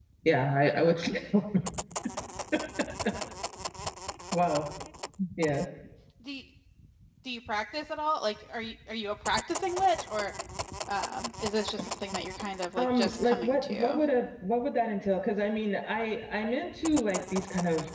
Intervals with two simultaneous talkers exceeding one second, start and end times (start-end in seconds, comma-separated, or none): 12.8-14.0